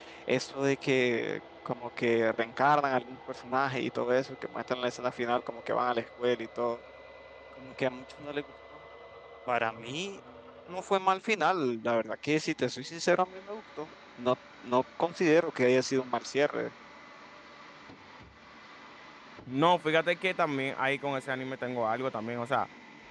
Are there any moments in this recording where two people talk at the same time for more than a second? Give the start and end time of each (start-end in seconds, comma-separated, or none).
none